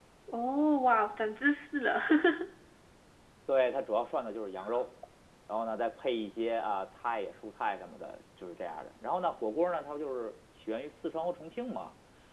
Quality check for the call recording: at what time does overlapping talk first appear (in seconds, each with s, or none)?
none